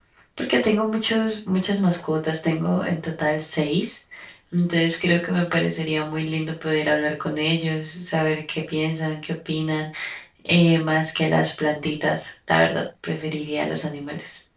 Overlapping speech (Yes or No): No